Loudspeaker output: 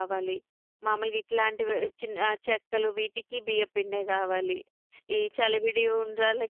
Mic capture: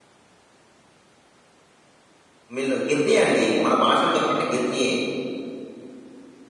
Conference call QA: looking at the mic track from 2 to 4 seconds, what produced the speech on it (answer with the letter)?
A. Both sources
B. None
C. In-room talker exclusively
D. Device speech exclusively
C